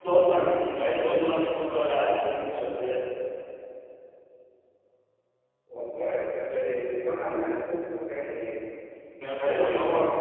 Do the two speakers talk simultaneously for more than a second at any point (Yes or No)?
No